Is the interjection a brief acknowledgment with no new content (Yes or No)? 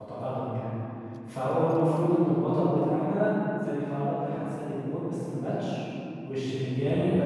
Yes